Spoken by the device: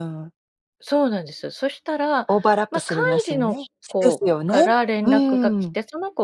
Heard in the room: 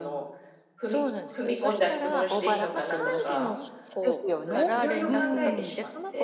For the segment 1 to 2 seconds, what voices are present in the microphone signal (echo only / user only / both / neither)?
both